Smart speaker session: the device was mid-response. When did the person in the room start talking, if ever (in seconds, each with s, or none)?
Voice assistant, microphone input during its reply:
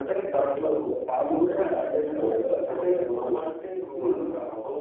2.2 s